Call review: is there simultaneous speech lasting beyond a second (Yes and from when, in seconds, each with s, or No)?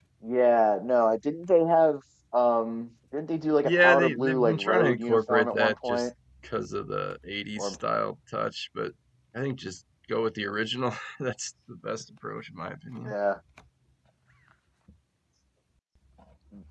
Yes, from 3.6 s